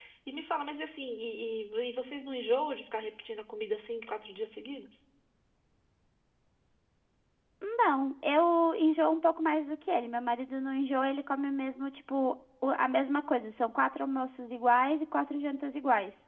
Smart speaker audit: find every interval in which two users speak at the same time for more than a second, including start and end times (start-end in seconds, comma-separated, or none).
none